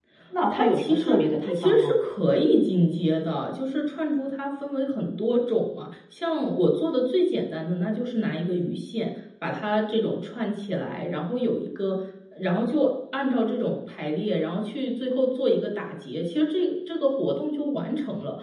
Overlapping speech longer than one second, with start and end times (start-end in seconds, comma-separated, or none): 0.5-1.9